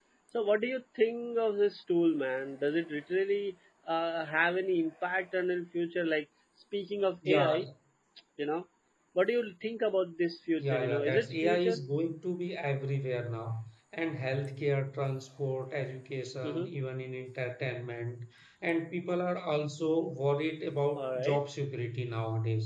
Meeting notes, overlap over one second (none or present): present